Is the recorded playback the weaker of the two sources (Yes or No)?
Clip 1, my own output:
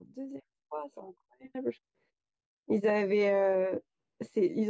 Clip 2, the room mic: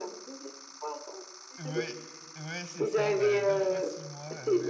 No